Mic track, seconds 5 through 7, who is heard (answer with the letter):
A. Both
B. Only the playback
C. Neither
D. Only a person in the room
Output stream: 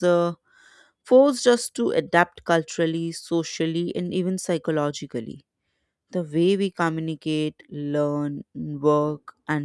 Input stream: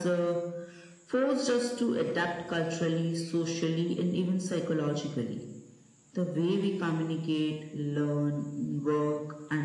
B